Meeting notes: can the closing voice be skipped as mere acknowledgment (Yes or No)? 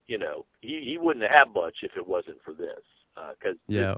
No